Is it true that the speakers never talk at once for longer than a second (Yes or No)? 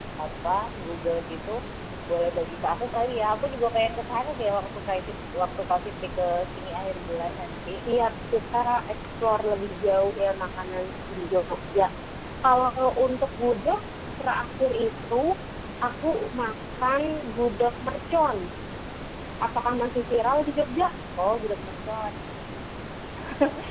Yes